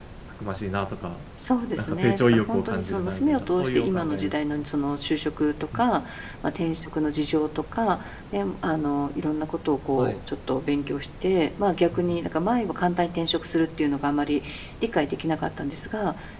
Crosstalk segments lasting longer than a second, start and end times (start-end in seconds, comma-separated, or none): 1.8-4.6